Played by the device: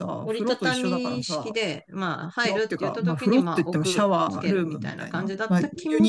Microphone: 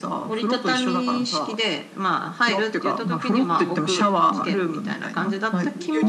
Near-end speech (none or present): present